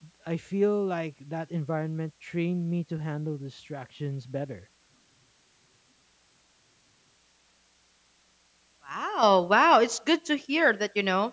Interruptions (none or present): none